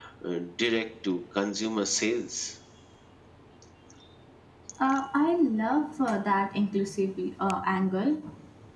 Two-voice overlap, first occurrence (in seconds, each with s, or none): none